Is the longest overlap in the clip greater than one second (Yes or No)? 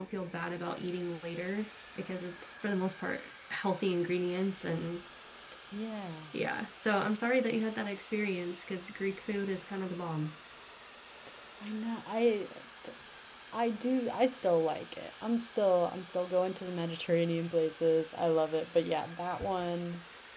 No